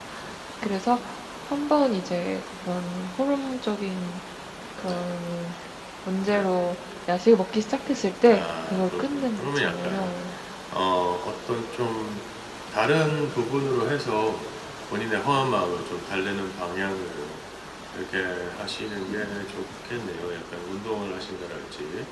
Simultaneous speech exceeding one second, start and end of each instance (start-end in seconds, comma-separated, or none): 8.3-10.1